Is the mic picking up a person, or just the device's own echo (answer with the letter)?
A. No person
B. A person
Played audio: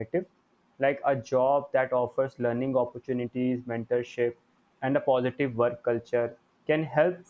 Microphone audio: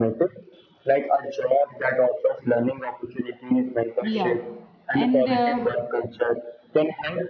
B